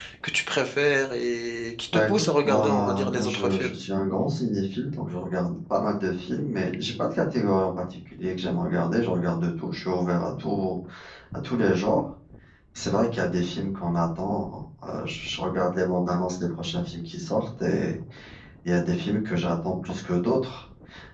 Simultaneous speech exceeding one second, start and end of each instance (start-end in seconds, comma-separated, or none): 1.9-3.7